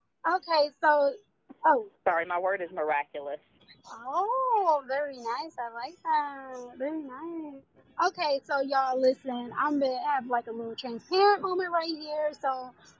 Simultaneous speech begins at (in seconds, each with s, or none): none